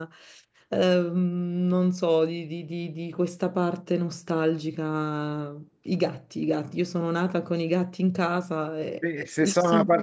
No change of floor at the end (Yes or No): No